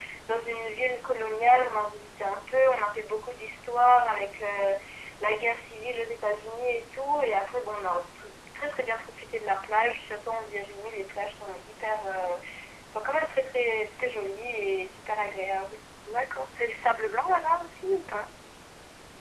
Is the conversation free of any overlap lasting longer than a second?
Yes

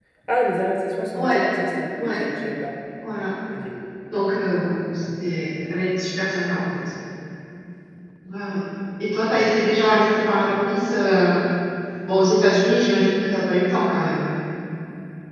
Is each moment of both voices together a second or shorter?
Yes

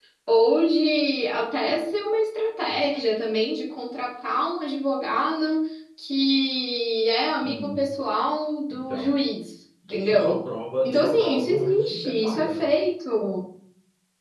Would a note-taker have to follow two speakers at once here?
Yes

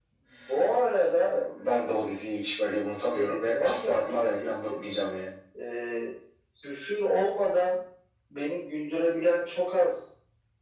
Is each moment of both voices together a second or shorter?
No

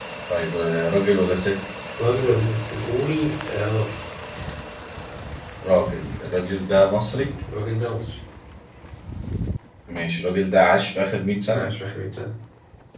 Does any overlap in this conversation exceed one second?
No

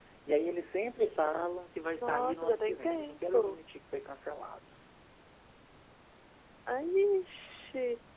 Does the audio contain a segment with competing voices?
Yes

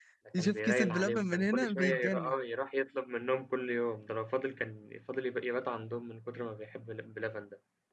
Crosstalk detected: Yes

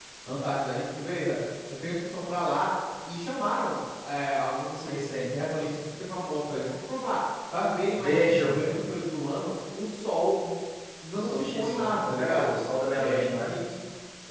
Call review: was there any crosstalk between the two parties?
Yes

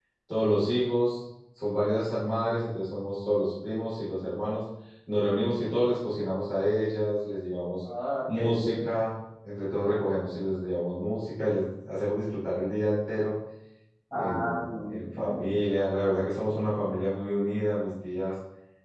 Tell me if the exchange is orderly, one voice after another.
No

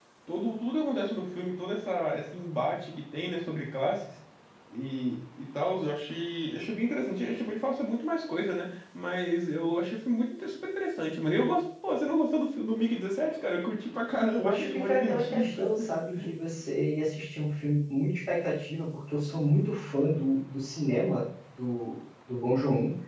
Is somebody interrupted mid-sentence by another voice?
Yes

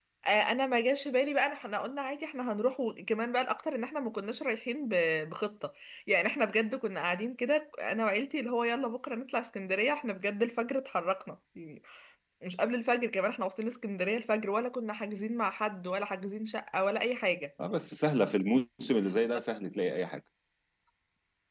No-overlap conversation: Yes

